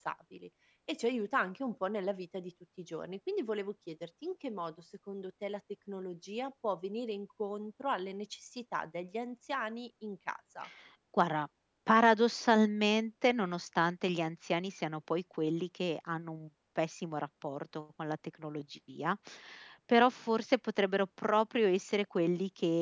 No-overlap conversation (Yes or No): Yes